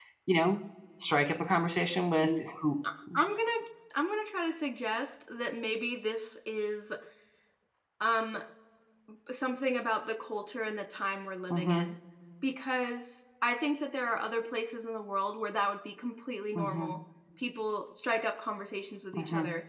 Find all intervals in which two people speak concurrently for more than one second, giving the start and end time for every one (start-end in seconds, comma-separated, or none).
none